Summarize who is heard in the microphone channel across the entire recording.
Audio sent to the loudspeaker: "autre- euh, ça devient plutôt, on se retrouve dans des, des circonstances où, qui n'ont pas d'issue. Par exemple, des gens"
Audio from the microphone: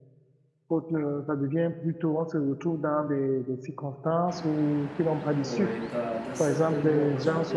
both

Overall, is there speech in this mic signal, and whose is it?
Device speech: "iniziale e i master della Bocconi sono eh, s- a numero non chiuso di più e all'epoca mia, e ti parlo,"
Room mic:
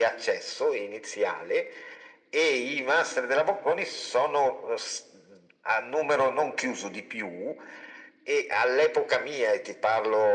echo only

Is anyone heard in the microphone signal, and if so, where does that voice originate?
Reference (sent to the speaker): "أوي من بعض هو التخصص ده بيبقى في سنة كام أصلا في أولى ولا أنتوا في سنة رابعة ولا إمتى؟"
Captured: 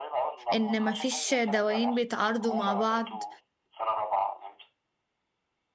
both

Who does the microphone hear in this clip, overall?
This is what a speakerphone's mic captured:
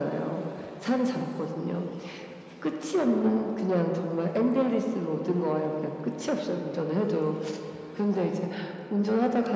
echo only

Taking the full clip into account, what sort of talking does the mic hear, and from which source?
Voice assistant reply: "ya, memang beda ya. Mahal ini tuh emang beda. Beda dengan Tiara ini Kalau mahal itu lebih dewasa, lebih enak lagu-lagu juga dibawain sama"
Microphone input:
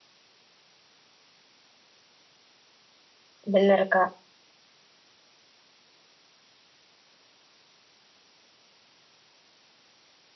user only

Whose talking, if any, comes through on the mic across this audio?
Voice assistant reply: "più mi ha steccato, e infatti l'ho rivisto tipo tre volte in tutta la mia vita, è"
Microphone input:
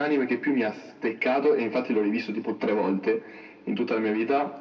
echo only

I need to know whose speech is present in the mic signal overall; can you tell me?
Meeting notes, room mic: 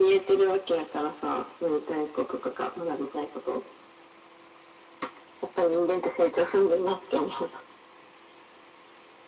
echo only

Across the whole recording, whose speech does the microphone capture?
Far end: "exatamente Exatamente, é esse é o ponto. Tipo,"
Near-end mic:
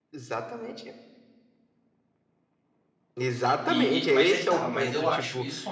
both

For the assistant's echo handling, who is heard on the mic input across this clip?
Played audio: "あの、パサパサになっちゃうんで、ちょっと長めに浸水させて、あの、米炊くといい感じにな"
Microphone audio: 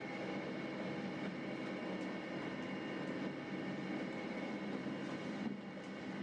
neither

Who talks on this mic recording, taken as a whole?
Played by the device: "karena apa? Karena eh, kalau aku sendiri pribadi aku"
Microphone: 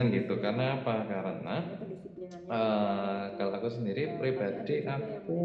both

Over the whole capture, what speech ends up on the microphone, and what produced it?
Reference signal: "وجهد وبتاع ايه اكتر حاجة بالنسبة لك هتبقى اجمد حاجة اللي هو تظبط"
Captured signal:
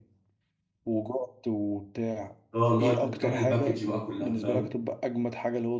both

